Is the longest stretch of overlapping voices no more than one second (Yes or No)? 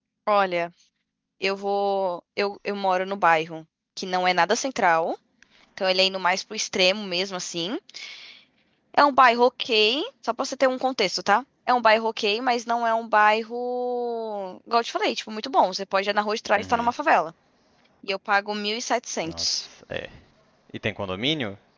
Yes